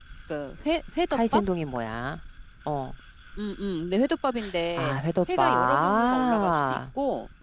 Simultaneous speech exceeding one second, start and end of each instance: 5.4-6.8

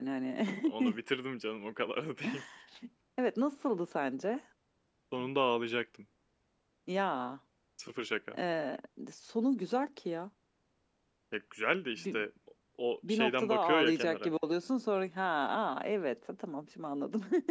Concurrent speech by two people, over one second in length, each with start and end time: 13.1-14.3

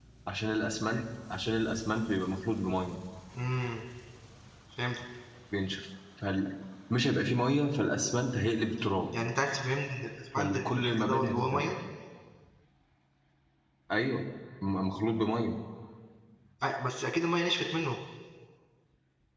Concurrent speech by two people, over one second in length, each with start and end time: 10.4-11.7

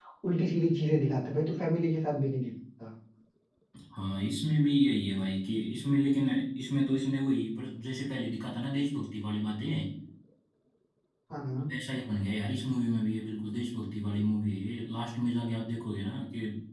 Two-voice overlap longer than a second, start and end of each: none

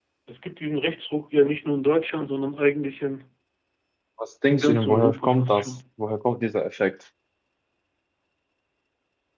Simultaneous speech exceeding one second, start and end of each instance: 4.5-5.7

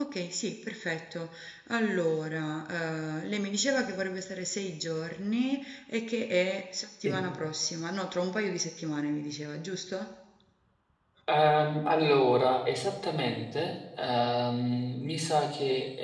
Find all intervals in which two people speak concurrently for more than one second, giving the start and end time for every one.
none

